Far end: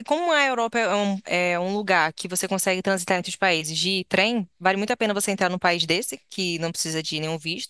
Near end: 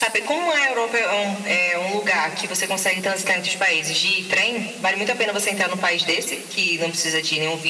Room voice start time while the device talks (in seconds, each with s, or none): none